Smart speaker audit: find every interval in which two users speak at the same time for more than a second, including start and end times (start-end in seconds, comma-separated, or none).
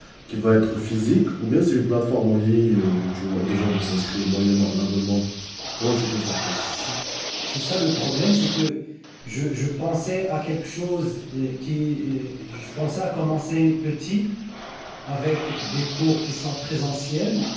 none